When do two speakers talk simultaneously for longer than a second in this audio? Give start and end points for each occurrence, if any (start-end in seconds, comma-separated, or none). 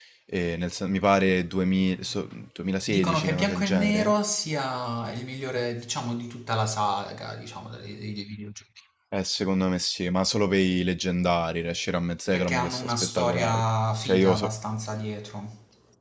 2.9-4.1, 12.3-13.6